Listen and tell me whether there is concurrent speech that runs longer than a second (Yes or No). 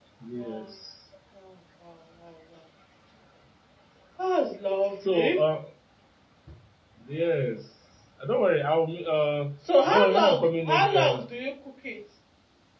Yes